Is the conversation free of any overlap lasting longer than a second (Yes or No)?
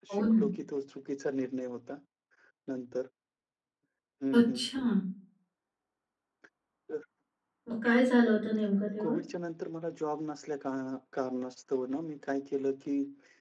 Yes